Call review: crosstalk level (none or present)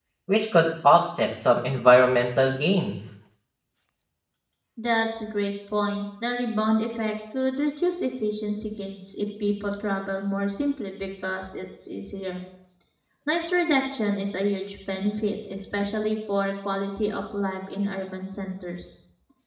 none